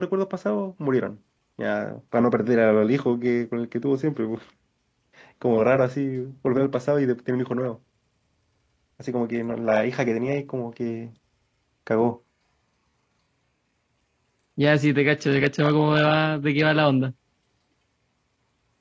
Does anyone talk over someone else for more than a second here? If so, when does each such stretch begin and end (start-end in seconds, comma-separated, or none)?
none